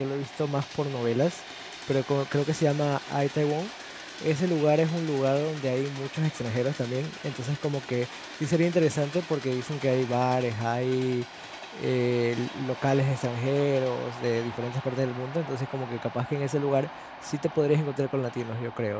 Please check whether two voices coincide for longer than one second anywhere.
No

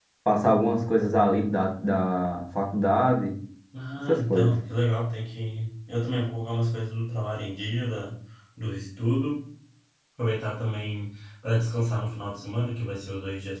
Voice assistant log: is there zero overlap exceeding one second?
Yes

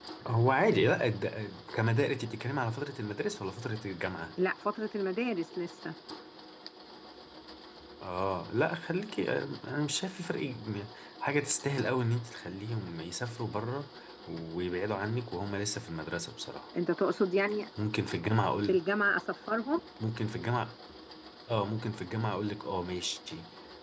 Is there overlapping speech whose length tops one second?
No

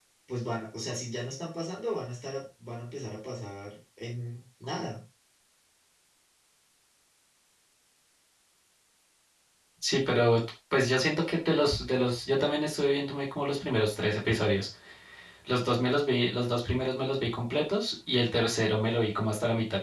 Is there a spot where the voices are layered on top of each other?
No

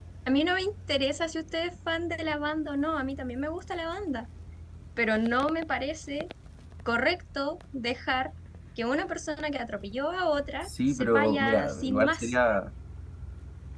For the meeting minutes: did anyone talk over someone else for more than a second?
Yes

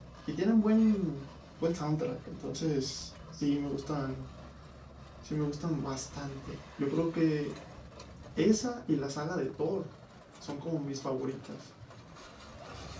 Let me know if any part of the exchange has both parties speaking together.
No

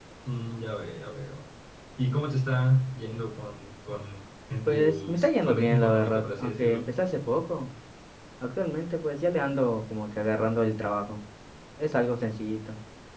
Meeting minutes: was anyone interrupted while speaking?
Yes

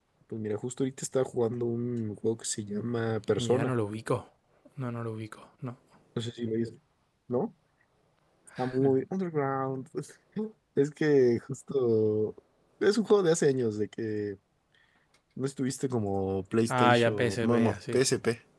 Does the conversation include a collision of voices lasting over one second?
Yes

